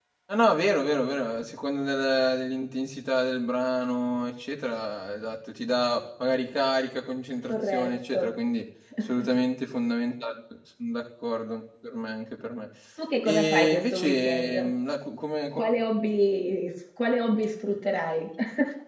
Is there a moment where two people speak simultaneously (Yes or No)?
Yes